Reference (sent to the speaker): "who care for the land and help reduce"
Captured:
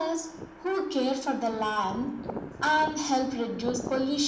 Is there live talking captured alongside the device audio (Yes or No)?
No